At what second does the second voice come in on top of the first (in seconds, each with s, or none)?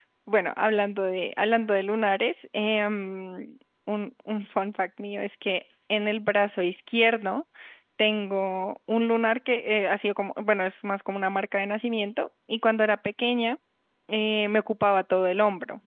none